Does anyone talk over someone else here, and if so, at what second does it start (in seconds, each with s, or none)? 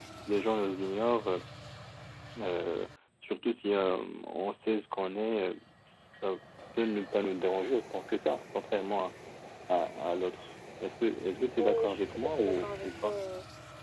11.6 s